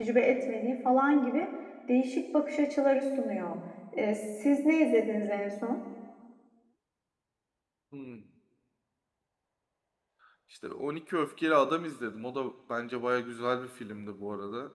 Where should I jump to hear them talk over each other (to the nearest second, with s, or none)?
none